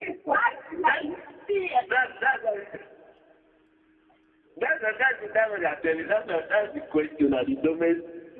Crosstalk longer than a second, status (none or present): none